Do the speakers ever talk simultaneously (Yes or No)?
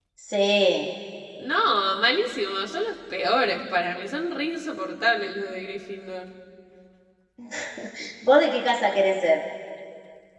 No